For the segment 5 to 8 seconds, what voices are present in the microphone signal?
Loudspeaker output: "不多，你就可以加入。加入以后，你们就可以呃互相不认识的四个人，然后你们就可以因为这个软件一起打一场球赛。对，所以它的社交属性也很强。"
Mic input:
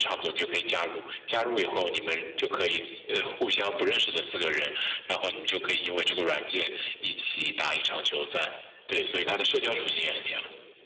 echo only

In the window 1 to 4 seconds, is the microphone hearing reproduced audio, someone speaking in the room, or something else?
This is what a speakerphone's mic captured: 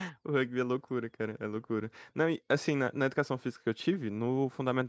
user only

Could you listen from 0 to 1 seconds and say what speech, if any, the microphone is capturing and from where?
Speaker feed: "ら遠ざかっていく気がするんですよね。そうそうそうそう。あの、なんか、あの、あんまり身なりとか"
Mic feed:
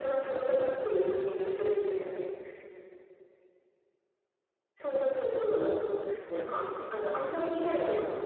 echo only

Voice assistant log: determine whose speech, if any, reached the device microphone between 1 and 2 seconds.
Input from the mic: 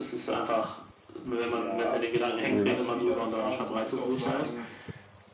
echo only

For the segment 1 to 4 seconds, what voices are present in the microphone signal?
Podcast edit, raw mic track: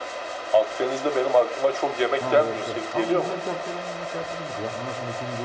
both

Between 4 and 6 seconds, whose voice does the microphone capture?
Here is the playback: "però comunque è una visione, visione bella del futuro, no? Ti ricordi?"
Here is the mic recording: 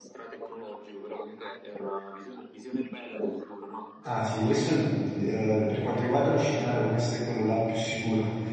both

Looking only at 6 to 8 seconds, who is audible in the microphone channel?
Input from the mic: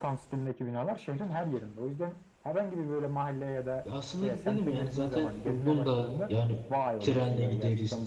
both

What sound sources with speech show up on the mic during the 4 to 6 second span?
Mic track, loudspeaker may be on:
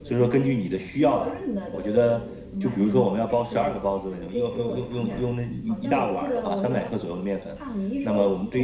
echo only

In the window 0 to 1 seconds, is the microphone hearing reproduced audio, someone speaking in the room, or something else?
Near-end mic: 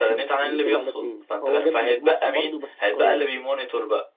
both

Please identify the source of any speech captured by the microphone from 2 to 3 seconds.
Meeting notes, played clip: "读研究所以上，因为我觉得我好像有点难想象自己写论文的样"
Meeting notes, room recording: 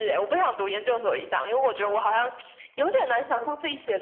echo only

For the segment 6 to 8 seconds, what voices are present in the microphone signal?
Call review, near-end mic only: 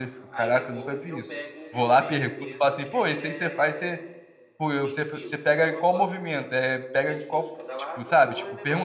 both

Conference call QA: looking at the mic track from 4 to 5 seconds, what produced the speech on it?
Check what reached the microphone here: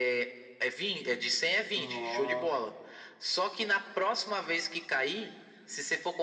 echo only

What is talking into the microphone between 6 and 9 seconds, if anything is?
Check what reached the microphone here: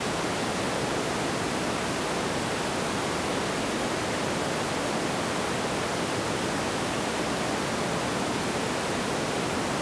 neither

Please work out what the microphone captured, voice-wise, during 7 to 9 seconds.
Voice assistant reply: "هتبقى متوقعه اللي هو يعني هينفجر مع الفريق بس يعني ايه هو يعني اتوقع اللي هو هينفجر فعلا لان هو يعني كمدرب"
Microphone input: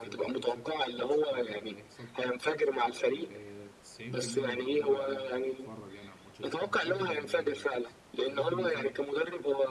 both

